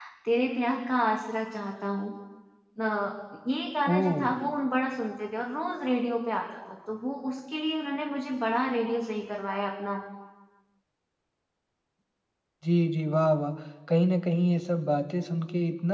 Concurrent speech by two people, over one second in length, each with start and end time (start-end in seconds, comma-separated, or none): none